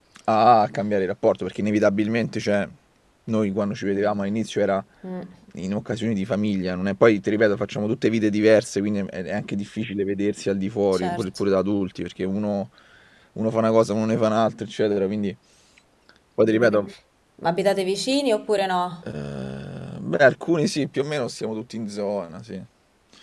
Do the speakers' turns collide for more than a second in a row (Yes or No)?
No